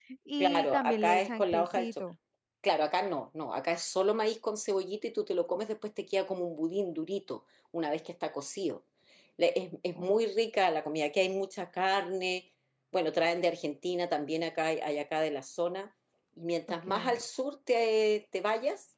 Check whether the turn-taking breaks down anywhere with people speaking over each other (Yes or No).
Yes